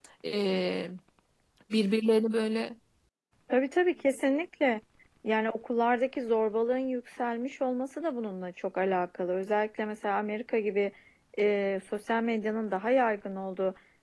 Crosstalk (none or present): none